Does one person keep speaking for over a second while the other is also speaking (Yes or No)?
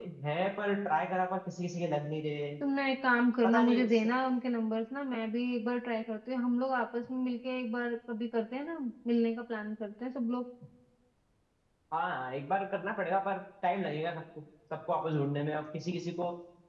No